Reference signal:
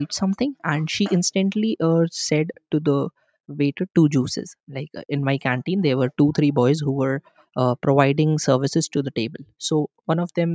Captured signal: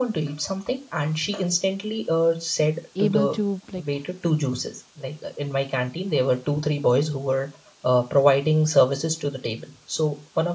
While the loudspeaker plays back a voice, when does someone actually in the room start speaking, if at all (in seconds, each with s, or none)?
2.9 s